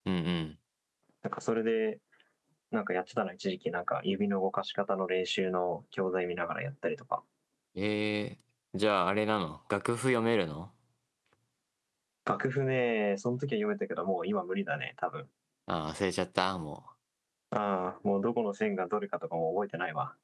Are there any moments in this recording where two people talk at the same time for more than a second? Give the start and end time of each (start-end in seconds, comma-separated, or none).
none